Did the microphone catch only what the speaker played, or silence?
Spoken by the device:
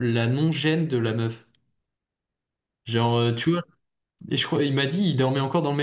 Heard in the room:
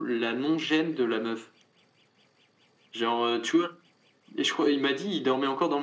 Yes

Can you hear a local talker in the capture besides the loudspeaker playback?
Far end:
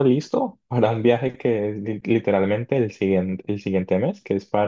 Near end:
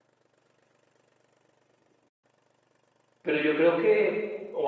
Yes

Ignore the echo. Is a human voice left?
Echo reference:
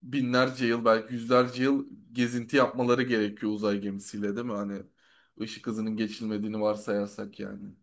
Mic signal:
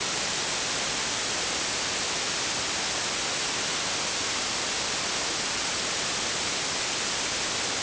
No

